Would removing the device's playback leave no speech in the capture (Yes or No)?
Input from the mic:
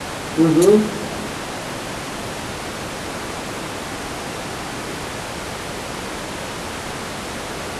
No